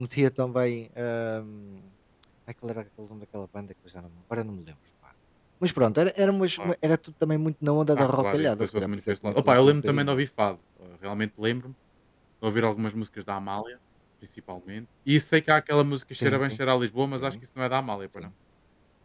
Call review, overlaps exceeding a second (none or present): present